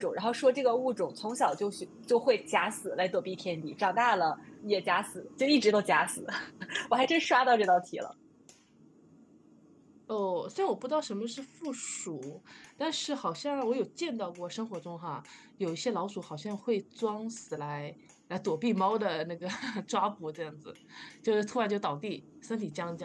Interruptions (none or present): none